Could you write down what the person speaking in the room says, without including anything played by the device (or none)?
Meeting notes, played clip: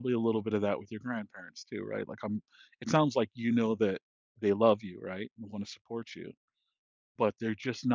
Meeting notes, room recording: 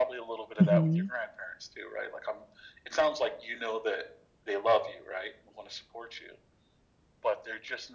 Mhm,